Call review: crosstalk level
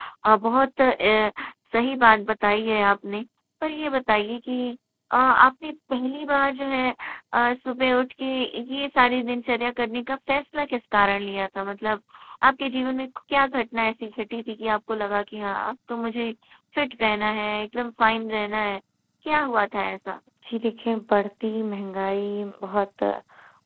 none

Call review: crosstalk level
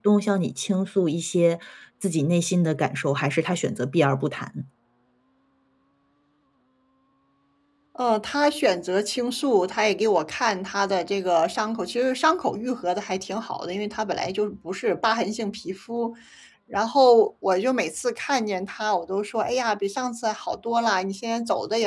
none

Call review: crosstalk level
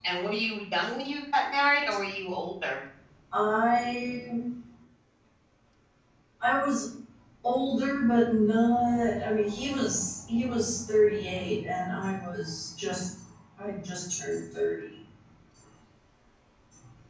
none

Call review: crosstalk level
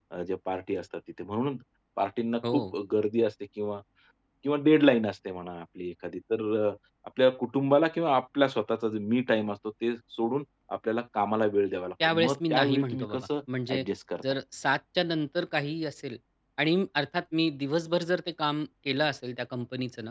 present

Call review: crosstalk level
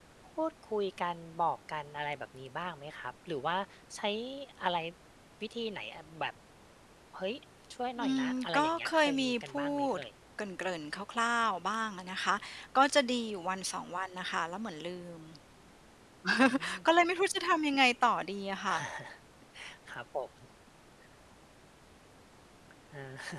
present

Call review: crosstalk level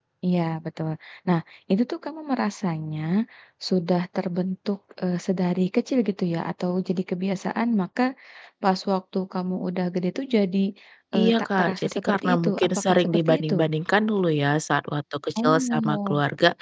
present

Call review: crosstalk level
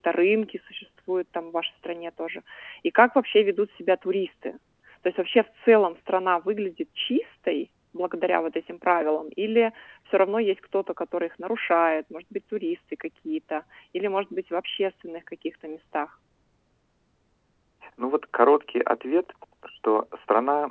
none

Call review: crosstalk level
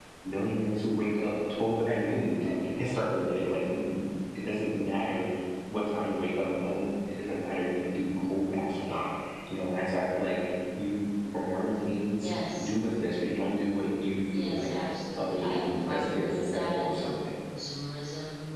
present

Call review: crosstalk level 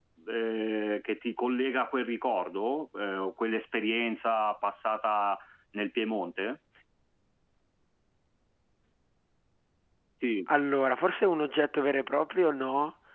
none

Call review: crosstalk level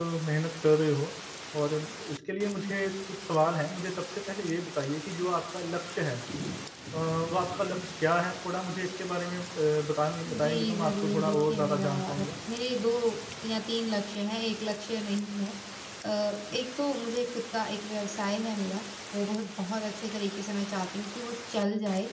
present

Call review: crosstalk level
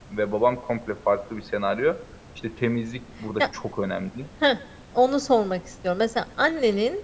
none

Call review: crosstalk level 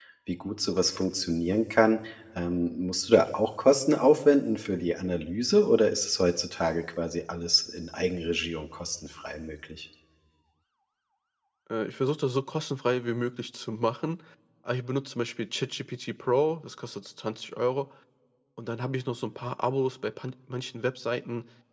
none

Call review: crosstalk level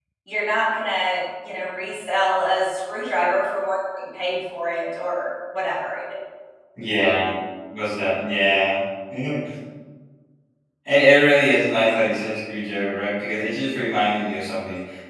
none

